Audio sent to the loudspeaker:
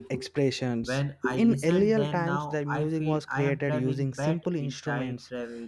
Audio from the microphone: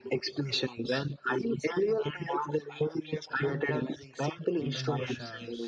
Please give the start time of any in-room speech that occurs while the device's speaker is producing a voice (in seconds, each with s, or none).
4.7 s